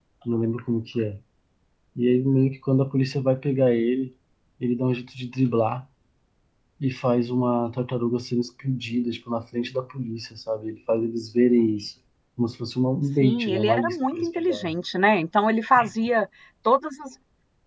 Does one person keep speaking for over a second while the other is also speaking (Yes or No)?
Yes